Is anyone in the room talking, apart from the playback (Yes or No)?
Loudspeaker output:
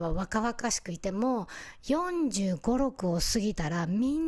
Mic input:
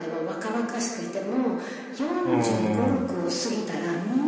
Yes